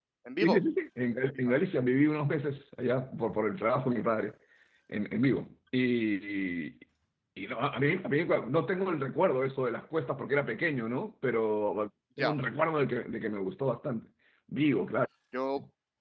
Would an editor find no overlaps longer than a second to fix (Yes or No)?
Yes